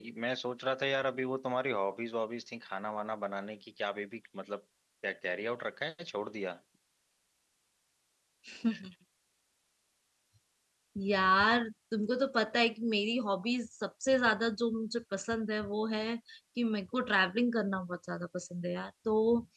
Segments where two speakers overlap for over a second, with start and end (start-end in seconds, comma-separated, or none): none